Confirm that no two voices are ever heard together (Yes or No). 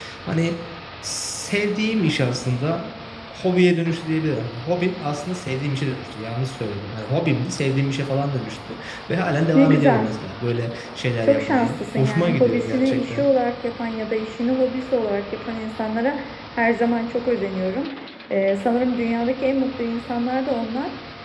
No